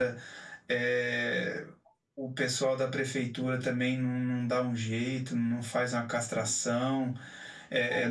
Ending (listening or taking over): listening